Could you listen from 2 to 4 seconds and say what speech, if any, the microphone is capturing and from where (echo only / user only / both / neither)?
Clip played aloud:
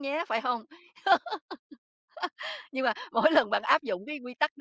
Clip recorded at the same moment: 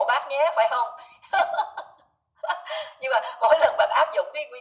echo only